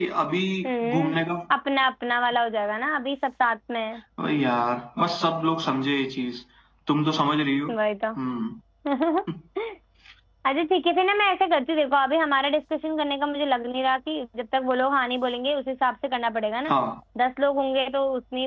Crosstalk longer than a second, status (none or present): none